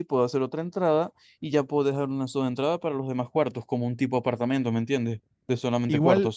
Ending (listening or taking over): taking over